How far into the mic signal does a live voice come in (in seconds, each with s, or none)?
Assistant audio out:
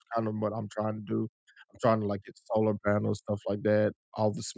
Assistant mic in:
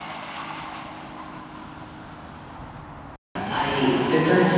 3.5 s